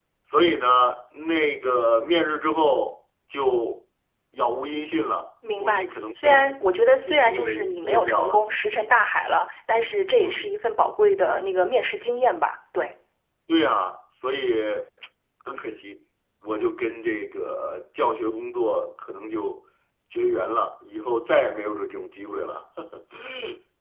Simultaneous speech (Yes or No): Yes